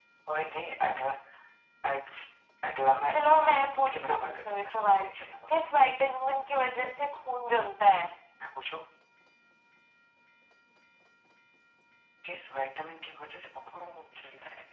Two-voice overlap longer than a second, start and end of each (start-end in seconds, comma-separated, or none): 3.1-5.1